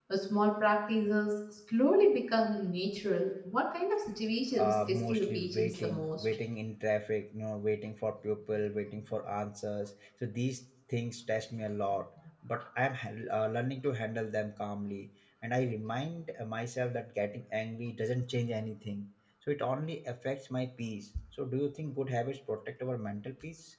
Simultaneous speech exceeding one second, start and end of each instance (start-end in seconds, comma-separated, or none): 4.5-6.2